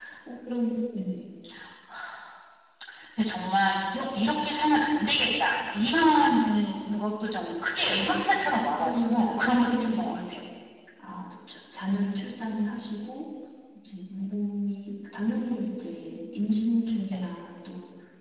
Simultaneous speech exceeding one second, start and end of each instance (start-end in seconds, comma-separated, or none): 7.8-10.4